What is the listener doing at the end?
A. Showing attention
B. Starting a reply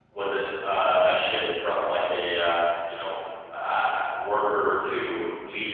B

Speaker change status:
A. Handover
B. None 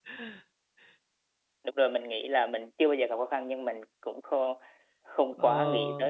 A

